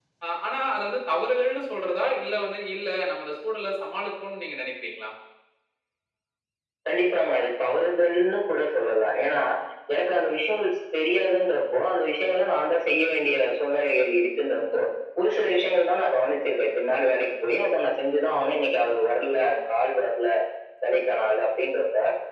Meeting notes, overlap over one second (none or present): none